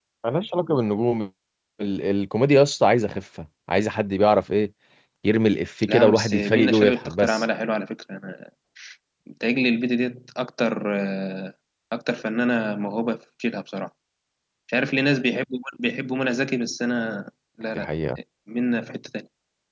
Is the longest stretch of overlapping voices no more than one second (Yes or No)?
No